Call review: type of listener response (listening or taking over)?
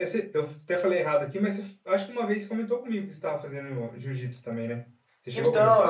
taking over